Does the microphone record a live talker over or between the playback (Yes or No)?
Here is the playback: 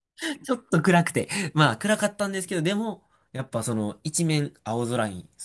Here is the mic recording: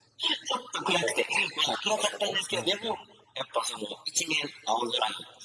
Yes